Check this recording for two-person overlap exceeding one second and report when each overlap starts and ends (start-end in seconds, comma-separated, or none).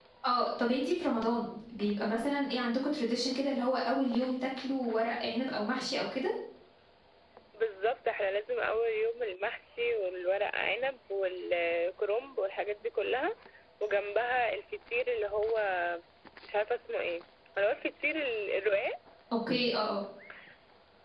none